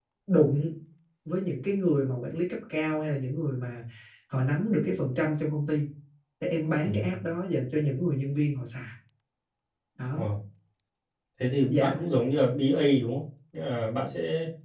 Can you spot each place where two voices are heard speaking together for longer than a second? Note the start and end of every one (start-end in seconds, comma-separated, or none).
none